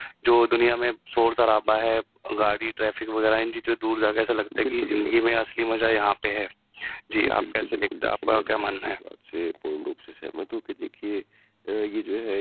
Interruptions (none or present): present